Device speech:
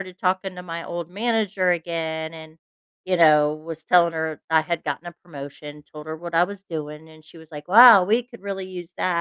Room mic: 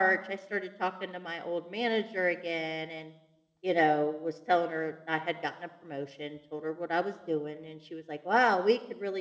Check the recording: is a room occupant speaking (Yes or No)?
No